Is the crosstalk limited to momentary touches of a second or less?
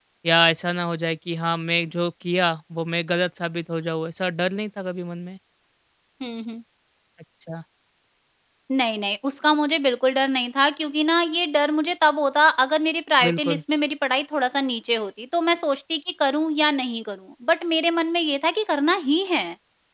Yes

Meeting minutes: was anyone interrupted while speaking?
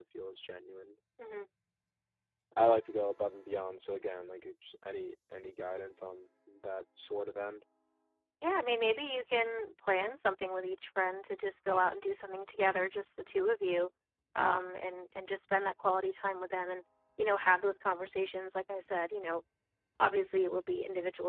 No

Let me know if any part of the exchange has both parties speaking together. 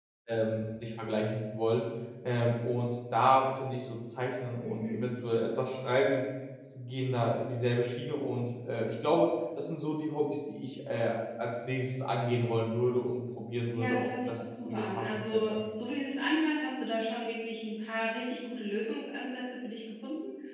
Yes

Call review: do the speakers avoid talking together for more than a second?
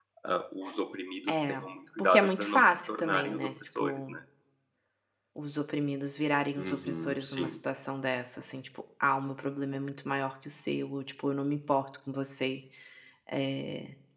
No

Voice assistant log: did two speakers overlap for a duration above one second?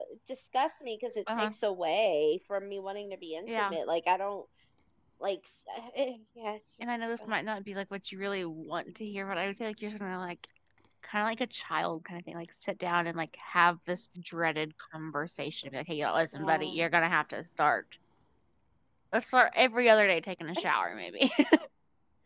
No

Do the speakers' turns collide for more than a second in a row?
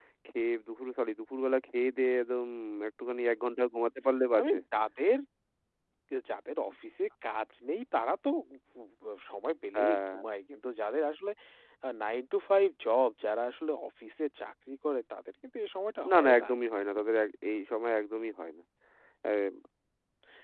No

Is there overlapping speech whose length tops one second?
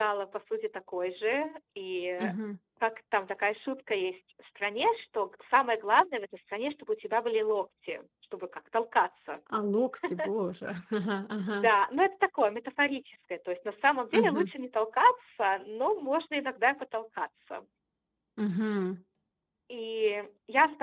No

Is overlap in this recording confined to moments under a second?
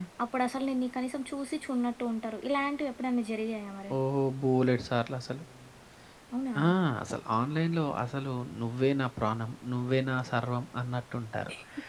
Yes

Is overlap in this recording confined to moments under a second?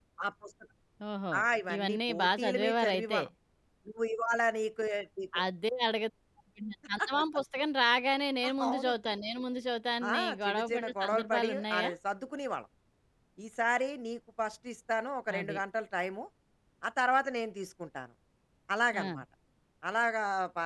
No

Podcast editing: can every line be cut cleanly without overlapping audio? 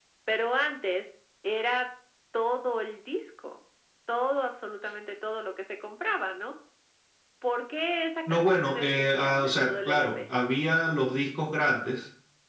No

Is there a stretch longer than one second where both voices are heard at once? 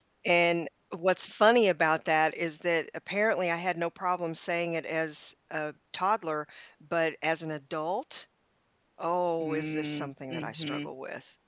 Yes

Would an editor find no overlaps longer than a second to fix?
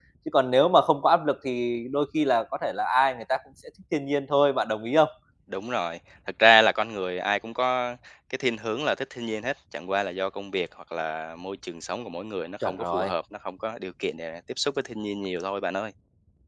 Yes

